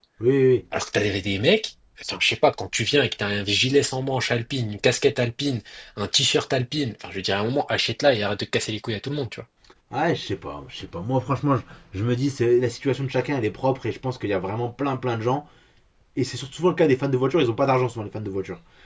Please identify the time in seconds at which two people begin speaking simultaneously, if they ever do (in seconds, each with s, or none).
none